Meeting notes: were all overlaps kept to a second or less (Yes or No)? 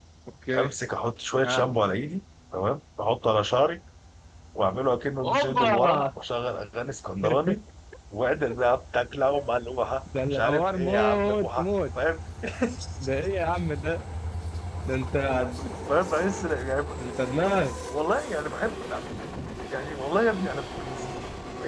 No